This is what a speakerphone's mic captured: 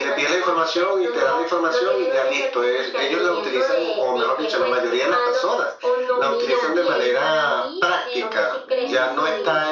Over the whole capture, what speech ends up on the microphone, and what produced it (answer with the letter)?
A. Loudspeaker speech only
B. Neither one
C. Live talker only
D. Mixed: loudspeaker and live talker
D